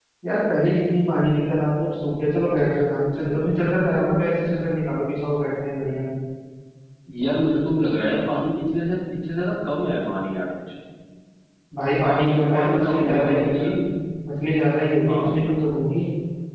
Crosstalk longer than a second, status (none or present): present